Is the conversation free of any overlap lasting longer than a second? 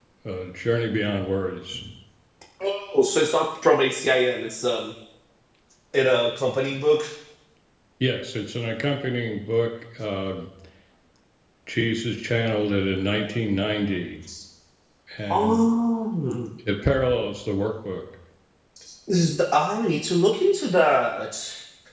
Yes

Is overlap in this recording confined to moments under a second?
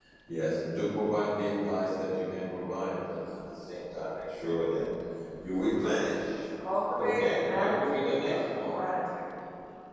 No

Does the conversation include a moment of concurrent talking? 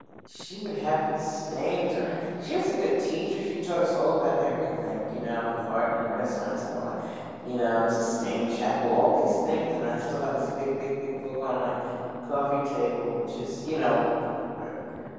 No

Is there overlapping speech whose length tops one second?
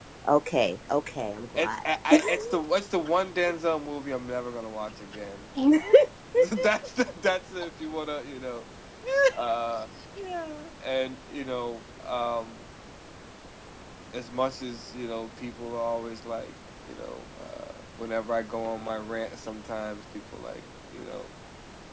No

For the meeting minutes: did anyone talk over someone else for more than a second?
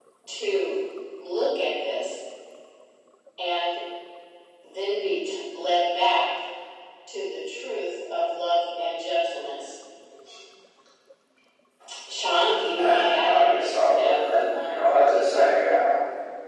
Yes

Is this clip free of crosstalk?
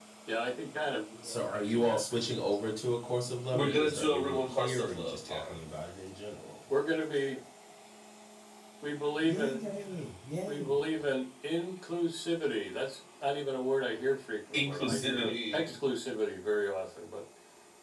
No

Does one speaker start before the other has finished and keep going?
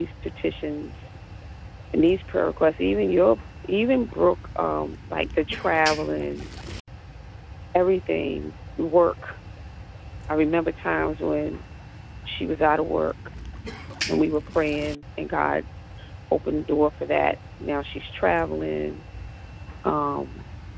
No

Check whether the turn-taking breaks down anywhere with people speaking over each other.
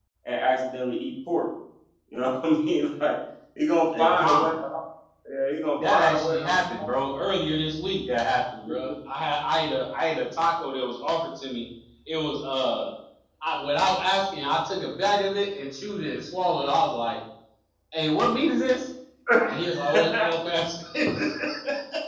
Yes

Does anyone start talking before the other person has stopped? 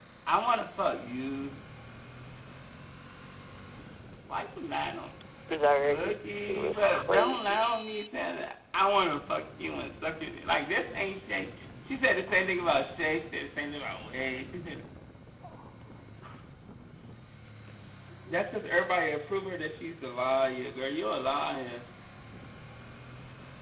Yes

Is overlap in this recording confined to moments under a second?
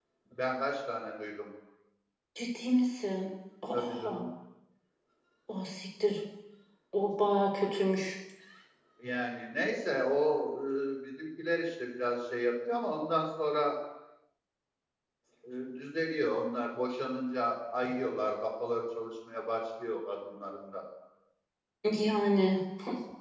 Yes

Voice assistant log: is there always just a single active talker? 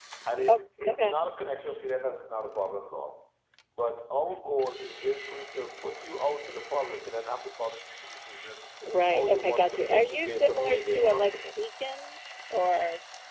No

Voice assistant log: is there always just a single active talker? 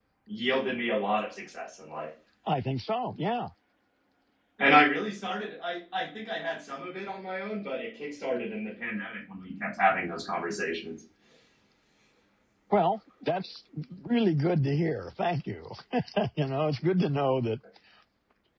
Yes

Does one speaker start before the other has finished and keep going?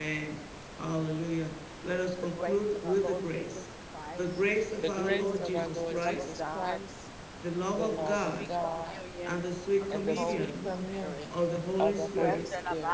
Yes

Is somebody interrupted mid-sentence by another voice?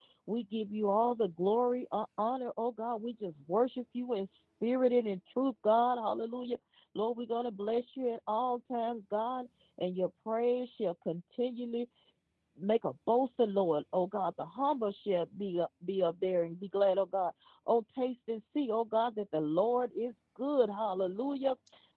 No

